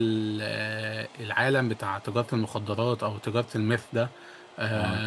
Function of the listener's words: listening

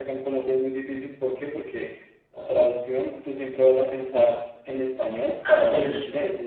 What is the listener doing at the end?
listening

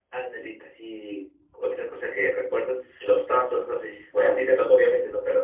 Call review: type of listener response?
listening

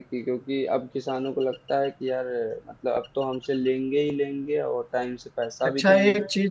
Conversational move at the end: taking over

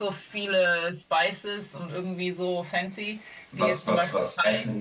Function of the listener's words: taking over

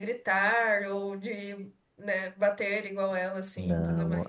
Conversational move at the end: taking over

